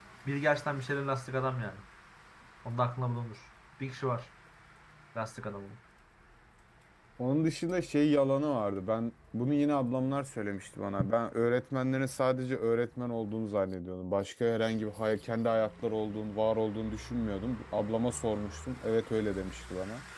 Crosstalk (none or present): none